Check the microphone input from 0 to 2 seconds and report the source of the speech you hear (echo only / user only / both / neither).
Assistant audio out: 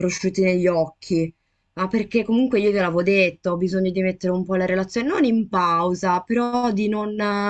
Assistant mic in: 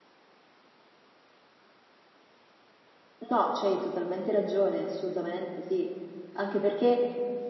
neither